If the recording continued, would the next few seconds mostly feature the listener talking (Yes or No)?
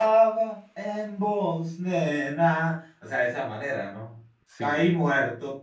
No